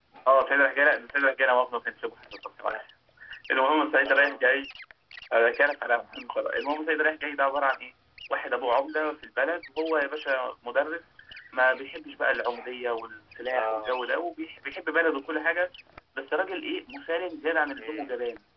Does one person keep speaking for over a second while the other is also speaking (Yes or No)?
No